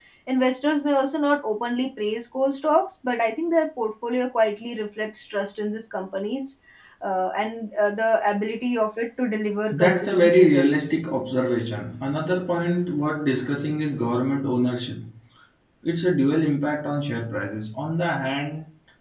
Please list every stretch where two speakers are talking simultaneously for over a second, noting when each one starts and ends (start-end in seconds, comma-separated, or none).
9.7-11.0